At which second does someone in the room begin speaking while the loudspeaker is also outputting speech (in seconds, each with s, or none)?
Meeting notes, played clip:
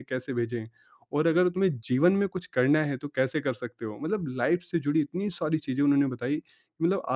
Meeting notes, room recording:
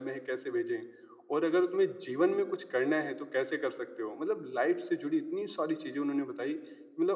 none